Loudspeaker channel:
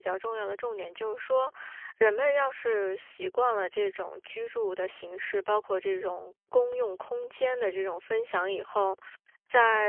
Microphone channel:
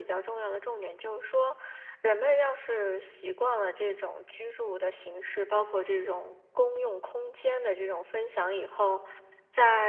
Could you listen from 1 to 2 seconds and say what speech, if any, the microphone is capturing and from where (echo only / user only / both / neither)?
echo only